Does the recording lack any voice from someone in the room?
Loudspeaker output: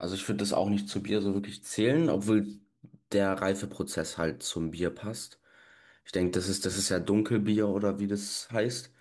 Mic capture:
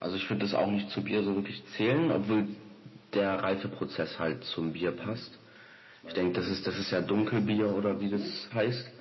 No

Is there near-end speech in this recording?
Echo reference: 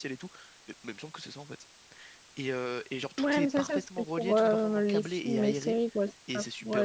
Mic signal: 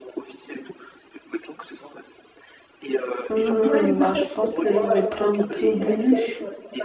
Yes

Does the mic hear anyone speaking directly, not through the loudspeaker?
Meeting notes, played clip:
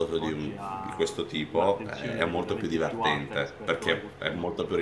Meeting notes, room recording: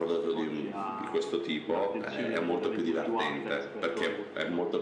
No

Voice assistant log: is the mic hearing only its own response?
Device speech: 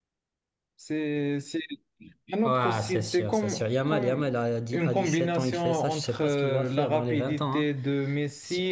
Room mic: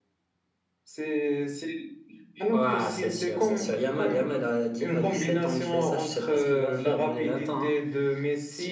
Yes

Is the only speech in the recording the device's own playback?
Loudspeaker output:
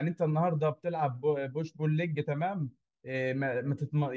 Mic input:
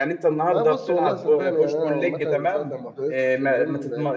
No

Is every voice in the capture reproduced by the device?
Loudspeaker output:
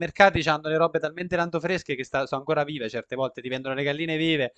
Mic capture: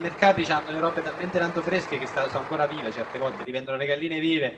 Yes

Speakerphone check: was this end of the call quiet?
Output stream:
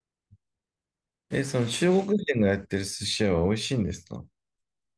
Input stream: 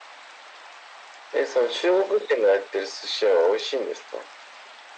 Yes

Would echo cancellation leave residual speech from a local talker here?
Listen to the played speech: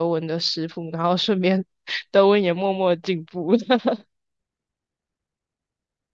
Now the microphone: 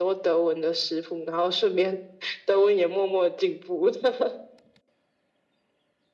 No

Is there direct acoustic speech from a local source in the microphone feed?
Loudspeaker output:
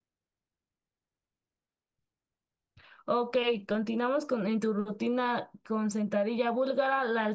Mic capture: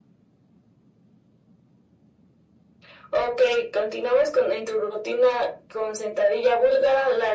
No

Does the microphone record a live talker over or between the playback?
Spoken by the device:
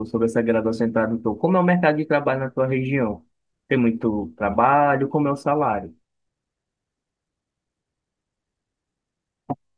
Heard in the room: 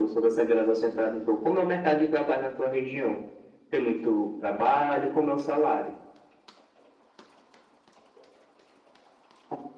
No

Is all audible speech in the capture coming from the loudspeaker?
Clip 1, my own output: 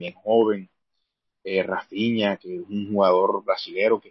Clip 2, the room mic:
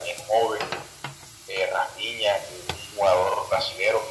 Yes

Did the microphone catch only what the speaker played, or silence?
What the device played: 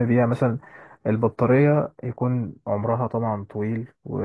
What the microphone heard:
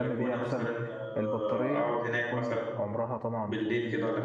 No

